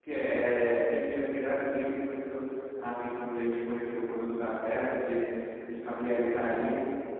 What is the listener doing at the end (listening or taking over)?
listening